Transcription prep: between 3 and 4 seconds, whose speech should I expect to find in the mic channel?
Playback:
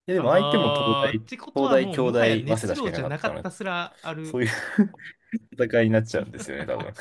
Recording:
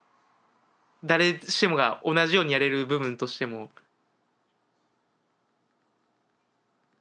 user only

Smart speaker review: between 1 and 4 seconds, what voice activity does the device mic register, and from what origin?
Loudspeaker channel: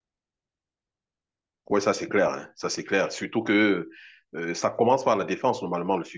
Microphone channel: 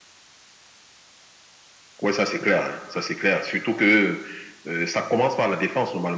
echo only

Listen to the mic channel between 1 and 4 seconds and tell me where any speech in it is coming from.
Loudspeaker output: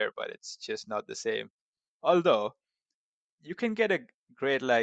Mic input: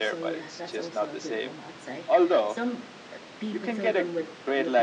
both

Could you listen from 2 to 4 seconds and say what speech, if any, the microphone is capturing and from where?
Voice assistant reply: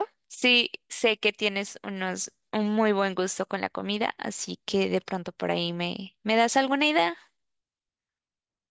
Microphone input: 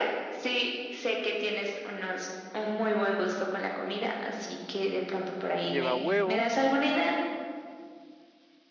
echo only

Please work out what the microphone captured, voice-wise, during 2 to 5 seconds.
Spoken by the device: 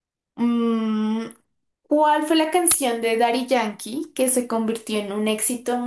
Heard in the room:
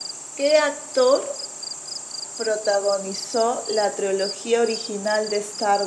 user only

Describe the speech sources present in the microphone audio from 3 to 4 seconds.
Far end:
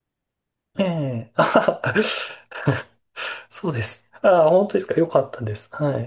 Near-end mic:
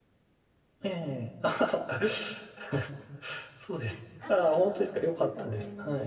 echo only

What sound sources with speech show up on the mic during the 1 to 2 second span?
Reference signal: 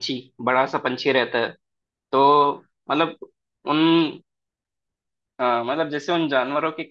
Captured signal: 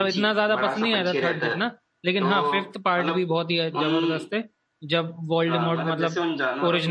both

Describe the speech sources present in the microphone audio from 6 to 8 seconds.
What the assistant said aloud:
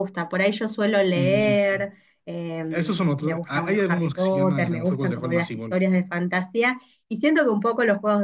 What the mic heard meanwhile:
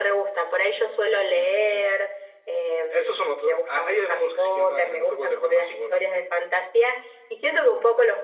echo only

